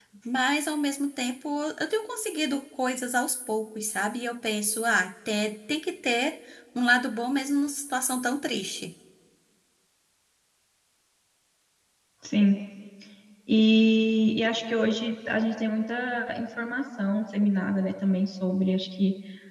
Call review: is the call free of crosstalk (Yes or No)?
Yes